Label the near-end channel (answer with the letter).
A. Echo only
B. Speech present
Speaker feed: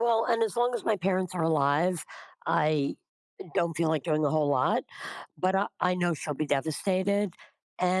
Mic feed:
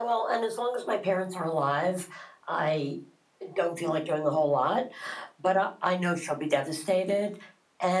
A